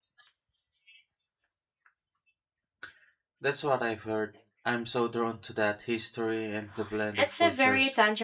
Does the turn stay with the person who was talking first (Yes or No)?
No